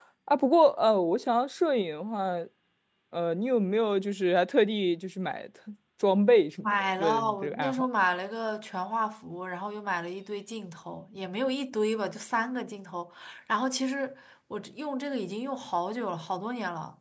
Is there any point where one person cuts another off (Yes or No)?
Yes